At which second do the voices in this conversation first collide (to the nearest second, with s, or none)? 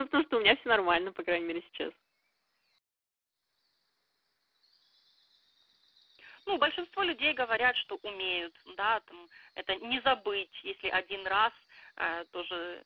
none